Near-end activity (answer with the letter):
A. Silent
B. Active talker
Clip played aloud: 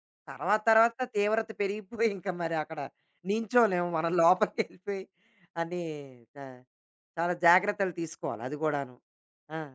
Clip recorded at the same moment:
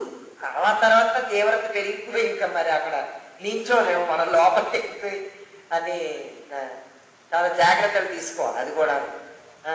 A